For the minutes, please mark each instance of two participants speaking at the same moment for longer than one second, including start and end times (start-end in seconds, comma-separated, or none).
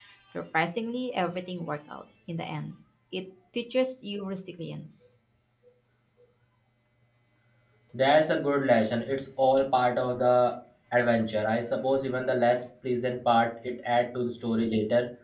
none